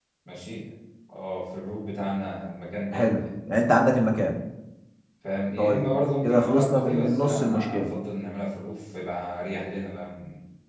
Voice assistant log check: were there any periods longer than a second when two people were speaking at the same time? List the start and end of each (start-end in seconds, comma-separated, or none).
6.2-7.8